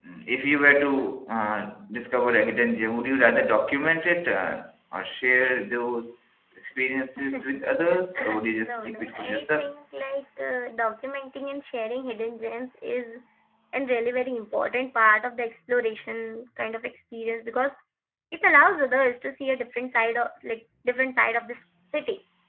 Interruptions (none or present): present